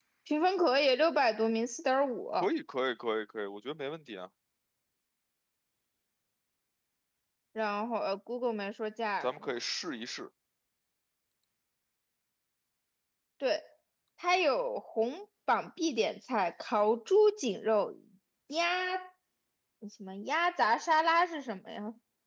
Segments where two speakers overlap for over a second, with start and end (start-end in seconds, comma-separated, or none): none